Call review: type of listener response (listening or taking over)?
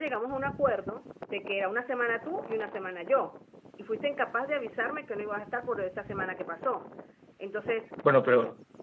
listening